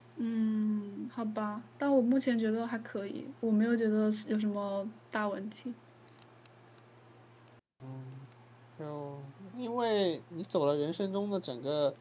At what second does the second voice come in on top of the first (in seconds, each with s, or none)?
none